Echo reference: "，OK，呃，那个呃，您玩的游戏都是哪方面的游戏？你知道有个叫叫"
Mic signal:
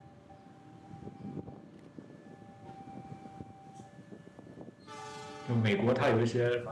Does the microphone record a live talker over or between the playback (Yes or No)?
Yes